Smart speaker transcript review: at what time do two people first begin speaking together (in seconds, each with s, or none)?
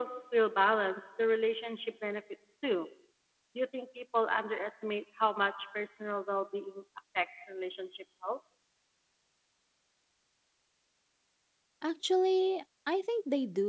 none